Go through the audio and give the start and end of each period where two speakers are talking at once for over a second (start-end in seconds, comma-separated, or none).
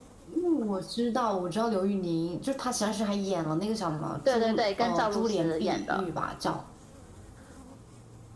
4.3-6.0